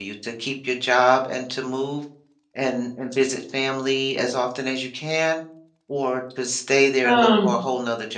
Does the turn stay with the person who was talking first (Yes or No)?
Yes